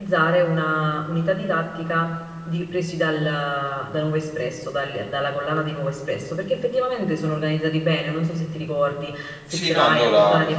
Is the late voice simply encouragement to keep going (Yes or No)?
No